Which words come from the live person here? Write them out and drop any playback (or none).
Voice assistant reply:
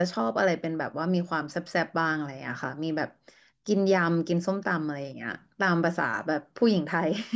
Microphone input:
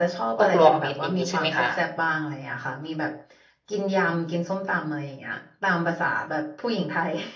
พวกรวมมิตรอย่างนี้ใช่ไหมคะ